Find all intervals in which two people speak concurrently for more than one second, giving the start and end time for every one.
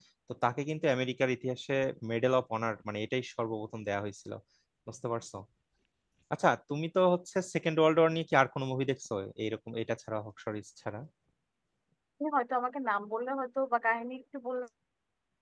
none

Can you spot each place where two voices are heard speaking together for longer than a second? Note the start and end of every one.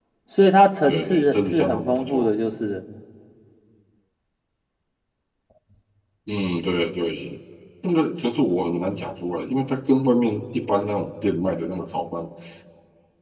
0.8-2.3

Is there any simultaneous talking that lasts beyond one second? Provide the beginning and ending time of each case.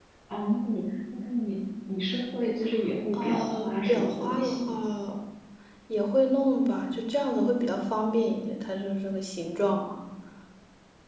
3.1-4.7

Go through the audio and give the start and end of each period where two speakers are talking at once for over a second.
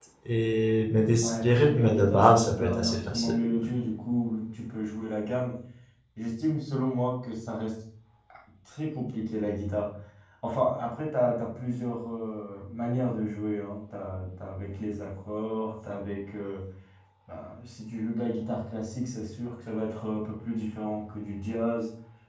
1.2-3.3

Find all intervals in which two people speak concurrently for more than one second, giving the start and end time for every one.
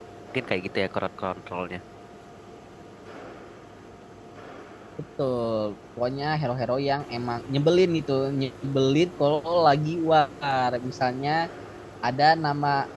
none

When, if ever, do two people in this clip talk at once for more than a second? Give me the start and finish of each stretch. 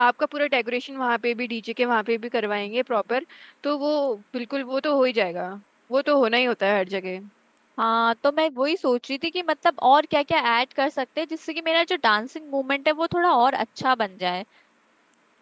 none

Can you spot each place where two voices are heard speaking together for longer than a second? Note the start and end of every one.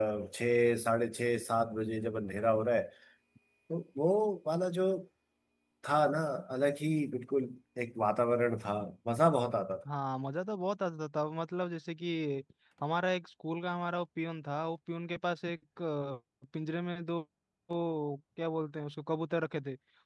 none

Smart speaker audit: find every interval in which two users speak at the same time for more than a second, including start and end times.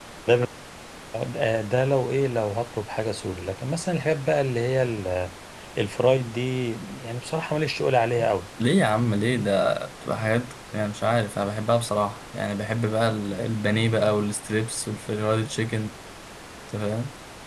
none

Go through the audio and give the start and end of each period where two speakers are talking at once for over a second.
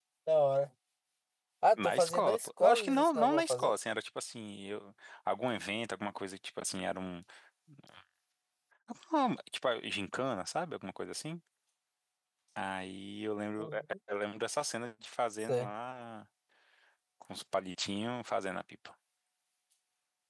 1.8-3.7

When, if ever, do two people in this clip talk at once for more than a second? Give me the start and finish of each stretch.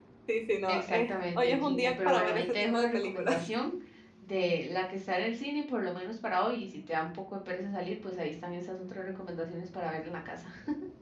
0.7-3.5

